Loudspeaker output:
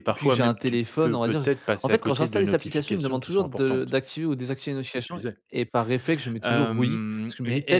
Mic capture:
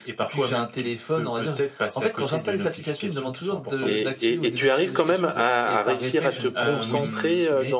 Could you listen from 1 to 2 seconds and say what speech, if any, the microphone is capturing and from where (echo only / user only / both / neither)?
echo only